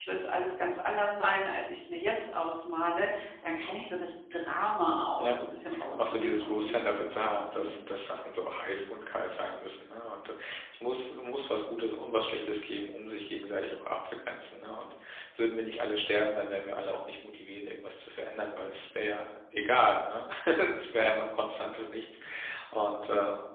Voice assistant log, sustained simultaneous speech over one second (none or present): present